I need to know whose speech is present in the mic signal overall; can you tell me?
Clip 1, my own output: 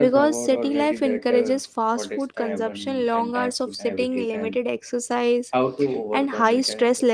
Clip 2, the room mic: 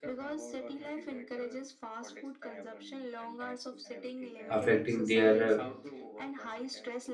both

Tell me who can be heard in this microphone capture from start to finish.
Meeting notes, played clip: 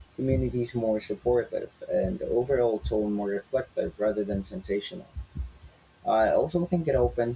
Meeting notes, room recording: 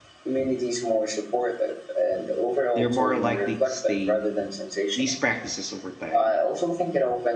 both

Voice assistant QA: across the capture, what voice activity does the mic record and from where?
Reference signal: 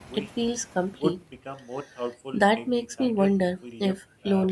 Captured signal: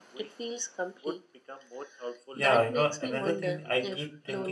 both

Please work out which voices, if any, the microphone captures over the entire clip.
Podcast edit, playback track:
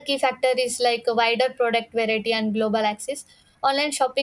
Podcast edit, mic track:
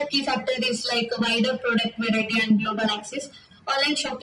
echo only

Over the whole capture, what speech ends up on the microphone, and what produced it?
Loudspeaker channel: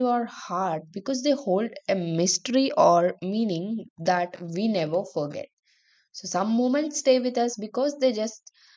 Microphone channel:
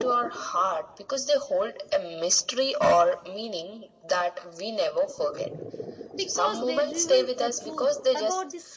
both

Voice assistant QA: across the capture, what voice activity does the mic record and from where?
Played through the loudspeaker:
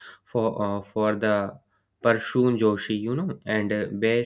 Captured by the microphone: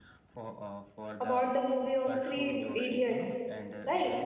both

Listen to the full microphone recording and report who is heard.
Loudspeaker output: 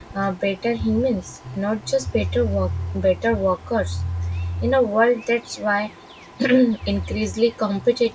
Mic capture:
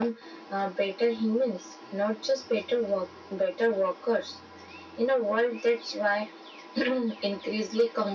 echo only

